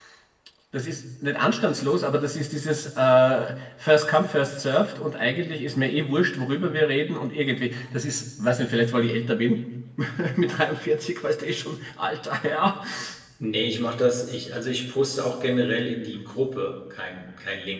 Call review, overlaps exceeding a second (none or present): none